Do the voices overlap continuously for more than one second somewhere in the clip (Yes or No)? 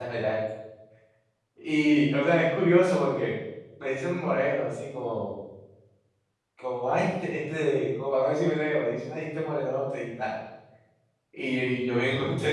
No